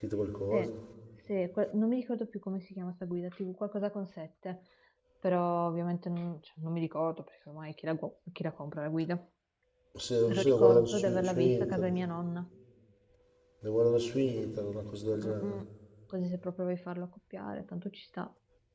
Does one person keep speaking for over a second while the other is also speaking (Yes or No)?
Yes